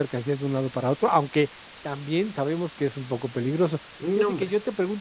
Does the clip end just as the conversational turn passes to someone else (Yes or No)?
No